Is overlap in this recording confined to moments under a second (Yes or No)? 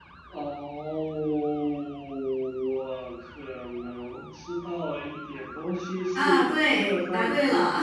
No